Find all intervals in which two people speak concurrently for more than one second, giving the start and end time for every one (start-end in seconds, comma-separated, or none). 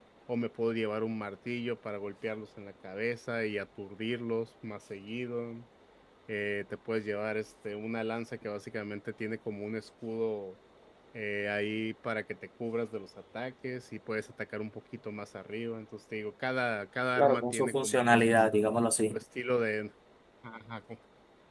17.2-18.6